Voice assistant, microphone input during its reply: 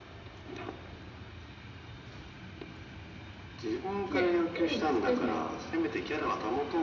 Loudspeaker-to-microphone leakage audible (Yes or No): Yes